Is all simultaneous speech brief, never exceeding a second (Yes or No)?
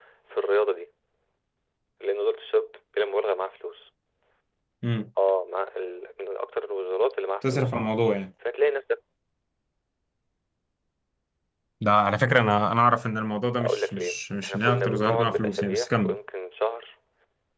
No